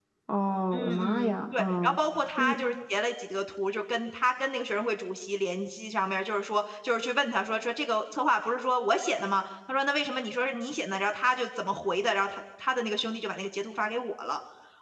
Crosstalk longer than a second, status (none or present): present